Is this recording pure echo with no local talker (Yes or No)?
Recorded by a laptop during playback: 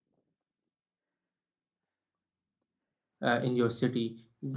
No